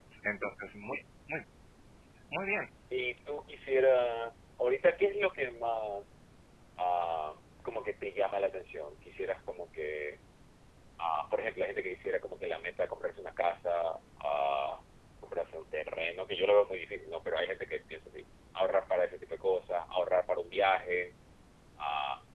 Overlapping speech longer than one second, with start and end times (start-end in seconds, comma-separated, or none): none